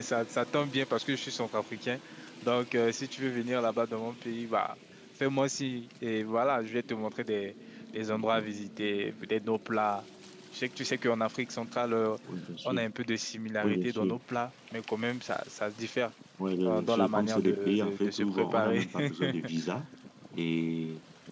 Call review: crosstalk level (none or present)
present